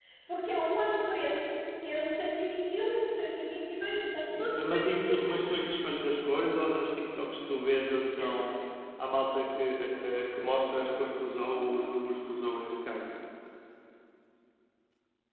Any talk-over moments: Yes, from 4.4 s

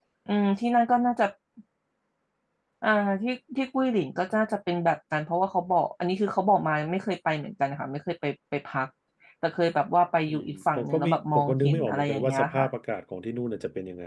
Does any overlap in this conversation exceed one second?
Yes, from 10.3 s

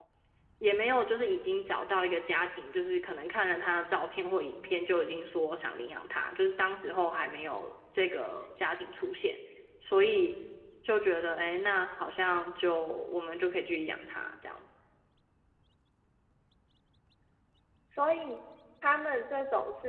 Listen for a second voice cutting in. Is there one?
No

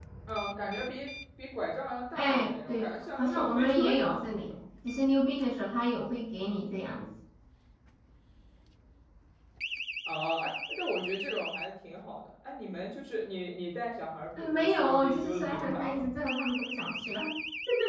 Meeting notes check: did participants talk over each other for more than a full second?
Yes, from 2.1 s

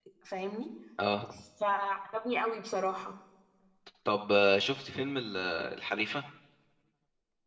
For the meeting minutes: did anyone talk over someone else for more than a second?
No

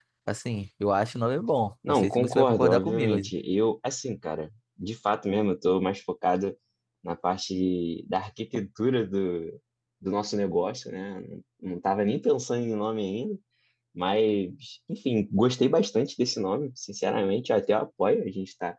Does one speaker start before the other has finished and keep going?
Yes, from 1.8 s

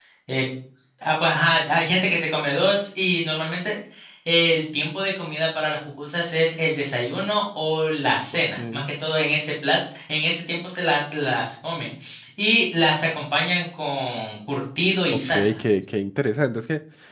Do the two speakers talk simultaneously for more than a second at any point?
No

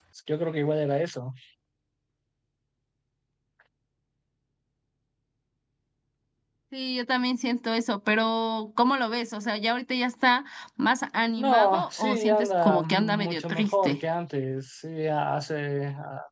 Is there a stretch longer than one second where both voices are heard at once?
Yes, from 11.4 s

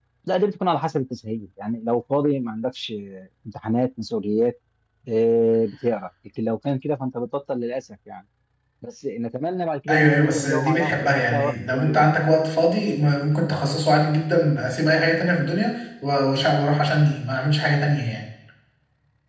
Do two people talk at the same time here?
Yes, from 9.9 s

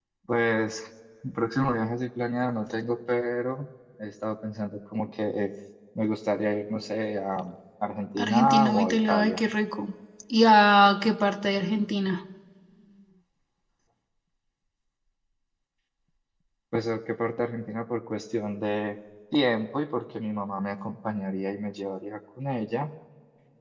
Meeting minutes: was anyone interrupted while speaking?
Yes, from 8.2 s

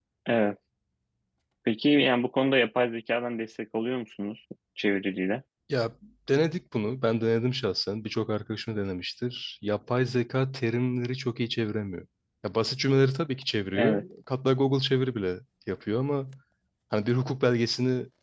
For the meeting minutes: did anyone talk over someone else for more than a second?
No

